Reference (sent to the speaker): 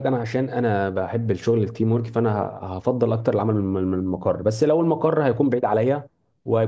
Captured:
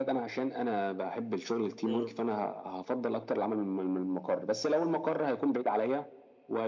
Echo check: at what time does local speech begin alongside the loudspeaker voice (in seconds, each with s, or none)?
1.8 s